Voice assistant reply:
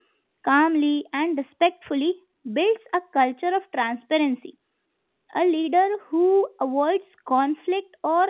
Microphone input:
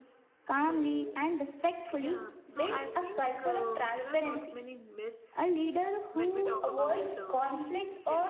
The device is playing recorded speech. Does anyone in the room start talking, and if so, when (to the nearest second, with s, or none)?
1 s